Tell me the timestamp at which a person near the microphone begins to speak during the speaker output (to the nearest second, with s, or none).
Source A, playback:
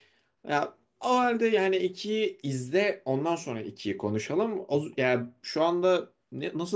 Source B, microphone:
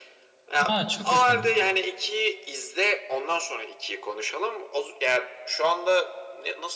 1 s